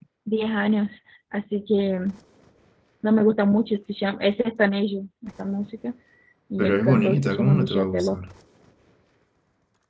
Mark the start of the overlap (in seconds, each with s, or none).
6.6 s